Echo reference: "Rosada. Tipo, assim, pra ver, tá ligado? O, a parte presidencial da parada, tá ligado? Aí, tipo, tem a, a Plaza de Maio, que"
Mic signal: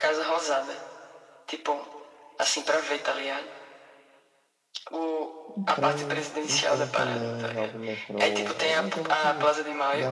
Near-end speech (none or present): present